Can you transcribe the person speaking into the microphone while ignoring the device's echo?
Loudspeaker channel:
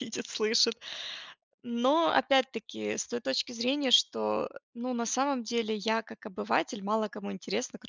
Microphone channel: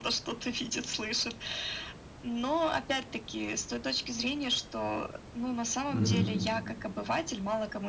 Мгм.

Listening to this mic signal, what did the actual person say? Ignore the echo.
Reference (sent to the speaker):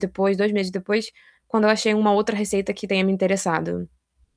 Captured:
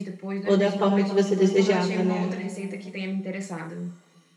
ou da forma que você desejava, né.

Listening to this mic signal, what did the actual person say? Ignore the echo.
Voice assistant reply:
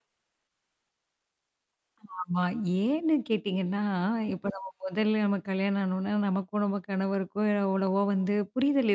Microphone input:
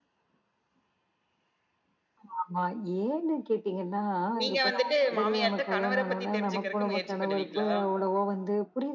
நீங்க வந்துட்டு மாமியார்ட்ட, கணவர பத்தி தெரிஞ்சுக்கிறக்கு முயற்சி பண்ணுவீங்களா?

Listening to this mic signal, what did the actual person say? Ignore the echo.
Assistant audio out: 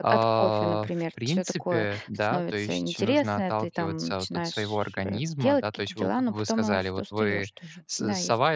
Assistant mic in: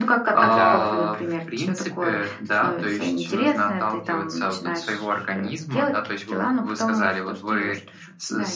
Н-да,

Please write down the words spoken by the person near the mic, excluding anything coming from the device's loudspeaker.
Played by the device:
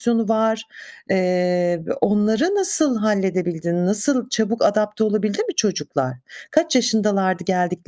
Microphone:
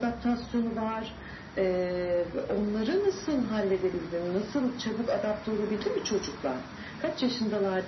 none

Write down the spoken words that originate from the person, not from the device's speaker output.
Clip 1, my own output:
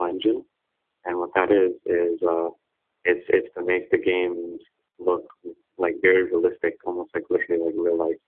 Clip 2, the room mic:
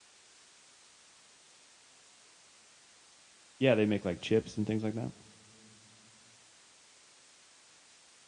Yeah, they make, like, chips and things like that.

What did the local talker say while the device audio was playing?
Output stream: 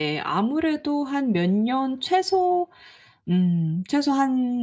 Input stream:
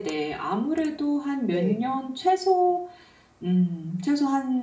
네.

